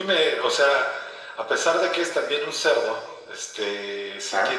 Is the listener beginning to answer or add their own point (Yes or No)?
No